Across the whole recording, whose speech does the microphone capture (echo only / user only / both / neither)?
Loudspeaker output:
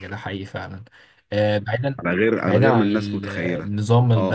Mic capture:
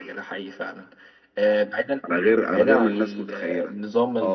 echo only